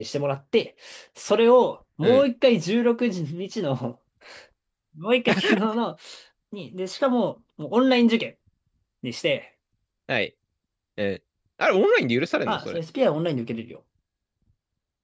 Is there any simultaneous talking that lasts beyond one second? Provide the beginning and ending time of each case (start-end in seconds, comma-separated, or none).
none